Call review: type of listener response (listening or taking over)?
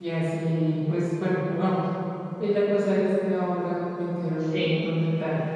listening